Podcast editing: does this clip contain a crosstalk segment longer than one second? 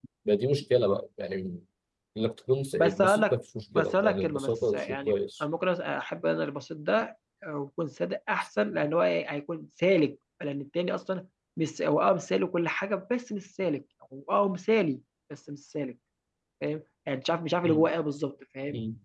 Yes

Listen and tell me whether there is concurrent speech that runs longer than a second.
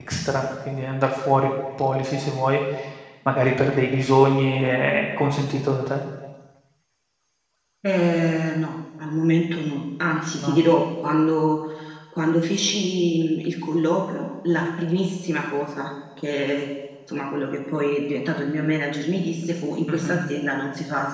No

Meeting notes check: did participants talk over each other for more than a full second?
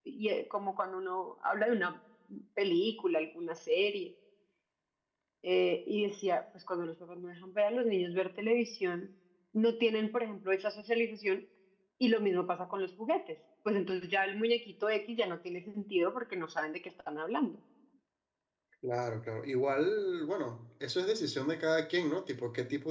No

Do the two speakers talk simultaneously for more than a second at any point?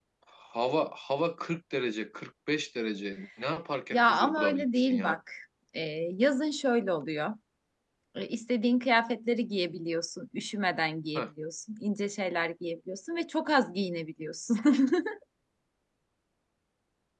Yes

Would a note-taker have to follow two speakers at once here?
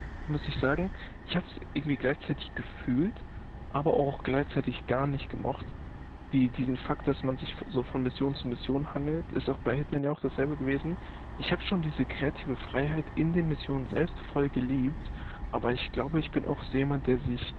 No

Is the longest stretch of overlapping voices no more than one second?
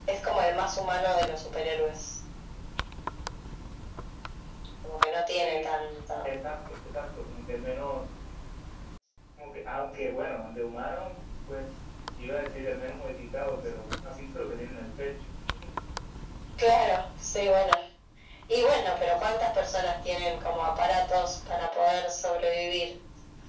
Yes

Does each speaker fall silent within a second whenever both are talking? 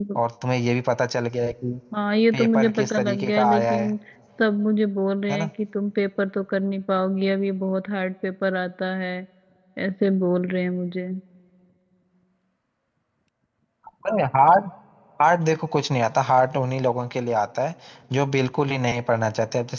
No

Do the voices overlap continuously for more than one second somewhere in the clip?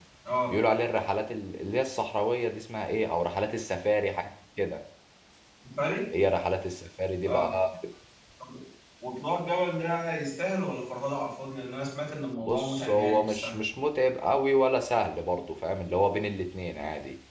Yes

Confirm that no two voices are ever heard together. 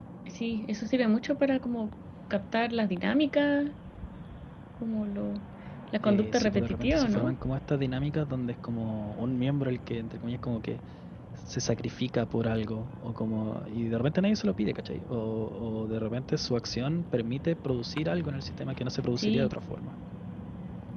No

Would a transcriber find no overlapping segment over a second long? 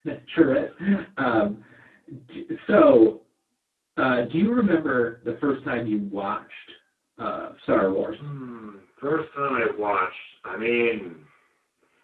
Yes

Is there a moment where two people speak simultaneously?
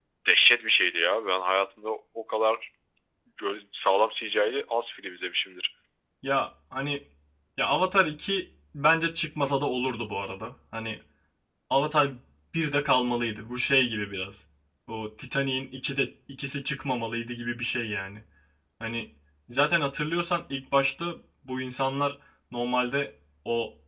No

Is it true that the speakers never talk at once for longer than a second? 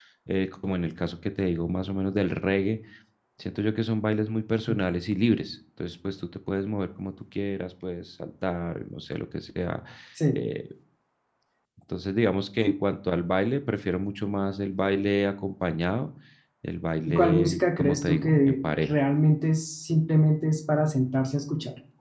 No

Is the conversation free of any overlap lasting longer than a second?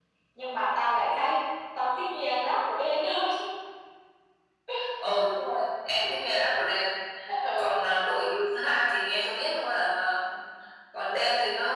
Yes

